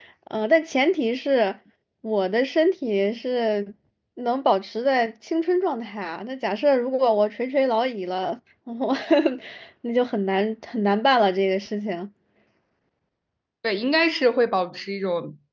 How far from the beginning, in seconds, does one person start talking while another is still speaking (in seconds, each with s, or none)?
none